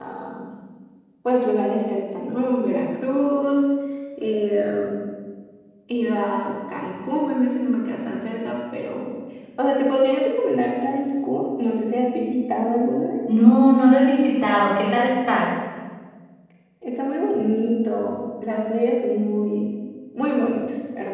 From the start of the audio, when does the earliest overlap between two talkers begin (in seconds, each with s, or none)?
none